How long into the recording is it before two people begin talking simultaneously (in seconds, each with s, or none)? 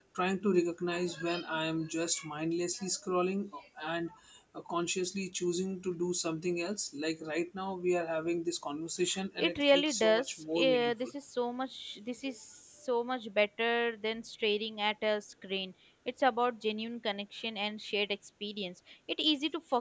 9.4 s